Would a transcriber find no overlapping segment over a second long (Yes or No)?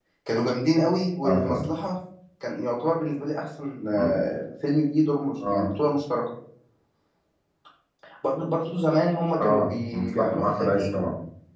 No